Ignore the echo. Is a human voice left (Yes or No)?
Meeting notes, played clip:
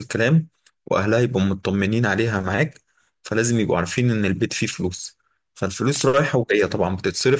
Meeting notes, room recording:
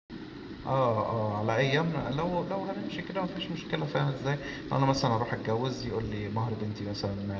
Yes